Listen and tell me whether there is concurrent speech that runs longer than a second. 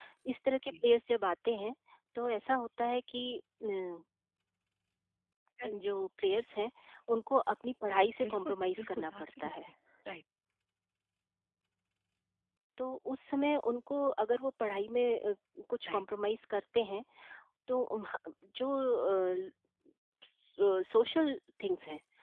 Yes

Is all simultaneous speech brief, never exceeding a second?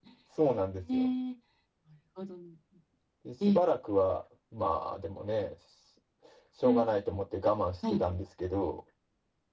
Yes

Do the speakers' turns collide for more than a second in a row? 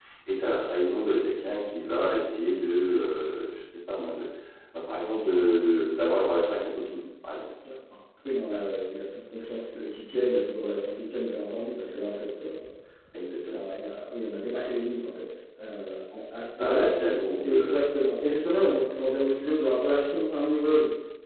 No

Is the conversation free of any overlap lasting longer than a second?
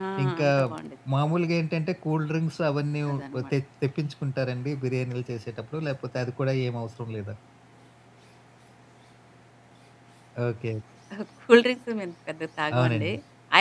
Yes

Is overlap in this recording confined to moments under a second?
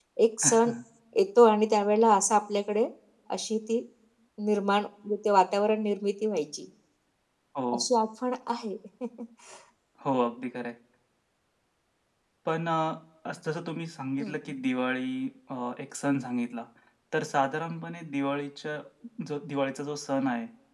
Yes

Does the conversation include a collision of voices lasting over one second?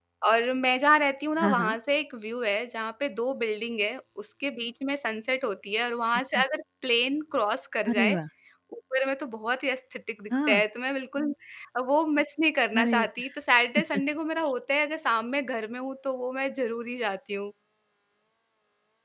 No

